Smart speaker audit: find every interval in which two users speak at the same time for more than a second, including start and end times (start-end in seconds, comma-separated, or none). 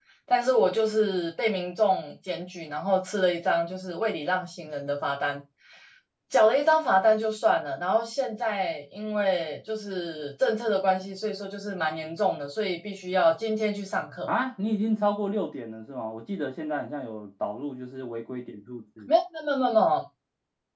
none